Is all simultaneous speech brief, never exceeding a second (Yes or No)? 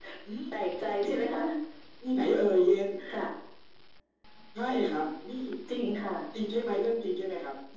Yes